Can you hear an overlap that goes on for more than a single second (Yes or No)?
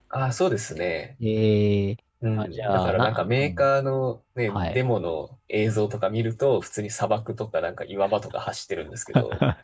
Yes